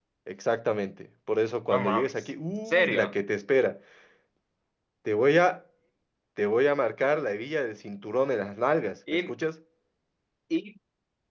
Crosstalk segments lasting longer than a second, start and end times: 1.7-3.1

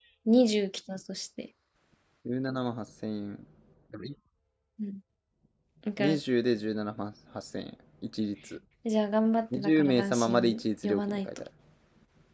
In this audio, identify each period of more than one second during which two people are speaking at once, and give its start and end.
9.5-11.2

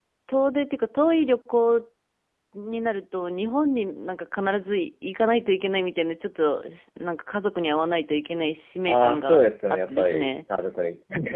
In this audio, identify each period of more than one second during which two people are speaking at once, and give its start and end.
8.9-10.3

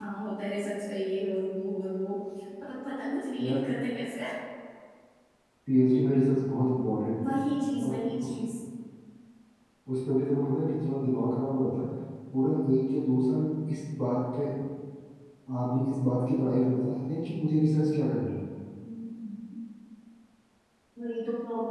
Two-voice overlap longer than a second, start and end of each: none

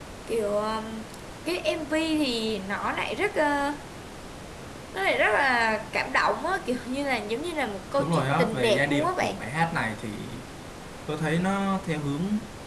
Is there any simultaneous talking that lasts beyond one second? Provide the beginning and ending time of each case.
8.0-9.3

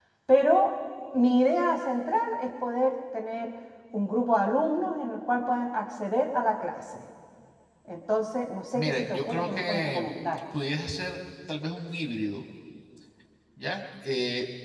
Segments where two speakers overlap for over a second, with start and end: 8.7-10.1

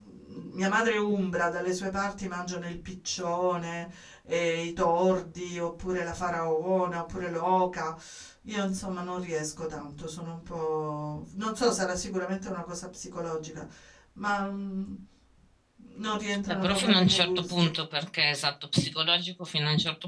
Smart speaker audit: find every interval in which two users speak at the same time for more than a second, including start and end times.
16.5-17.7

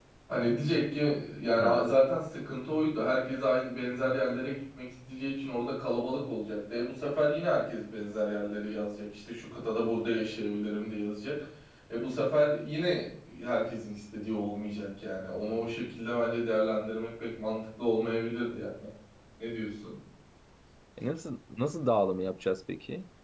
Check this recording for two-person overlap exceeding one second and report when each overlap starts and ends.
none

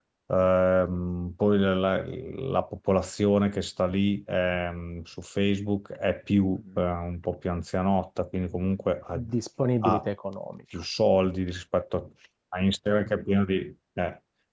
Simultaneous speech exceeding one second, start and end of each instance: none

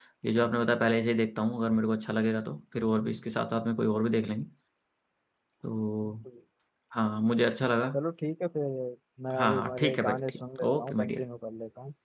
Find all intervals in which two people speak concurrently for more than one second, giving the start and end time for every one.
9.4-11.2

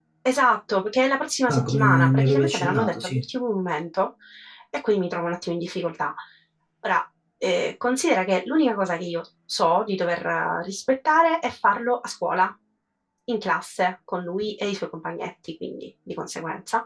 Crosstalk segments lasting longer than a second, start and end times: 1.5-3.2

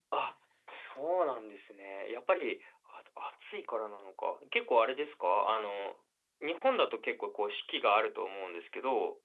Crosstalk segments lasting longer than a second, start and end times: none

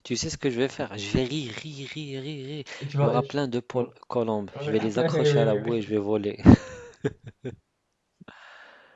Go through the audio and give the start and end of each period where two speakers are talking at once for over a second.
4.6-5.9

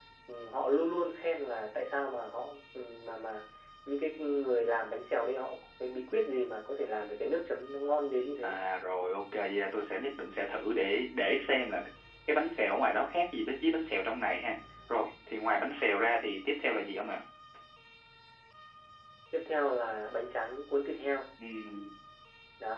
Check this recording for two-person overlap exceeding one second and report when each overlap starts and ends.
none

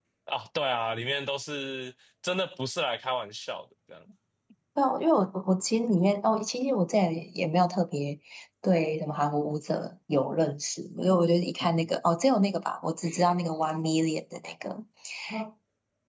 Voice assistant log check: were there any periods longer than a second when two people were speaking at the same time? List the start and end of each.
none

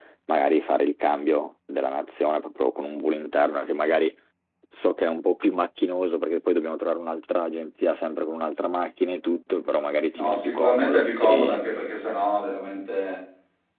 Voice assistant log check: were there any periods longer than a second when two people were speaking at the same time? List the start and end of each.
10.1-11.7

